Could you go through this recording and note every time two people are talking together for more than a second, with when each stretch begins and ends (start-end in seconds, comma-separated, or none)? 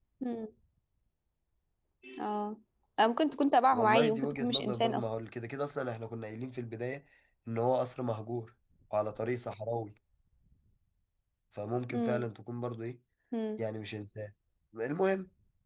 3.7-5.1